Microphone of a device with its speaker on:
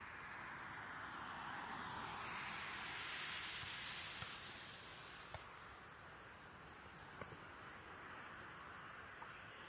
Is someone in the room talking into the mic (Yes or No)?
No